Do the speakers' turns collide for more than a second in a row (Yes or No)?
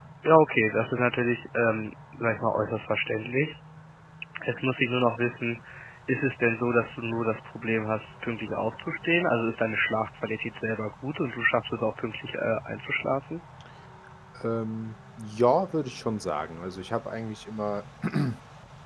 No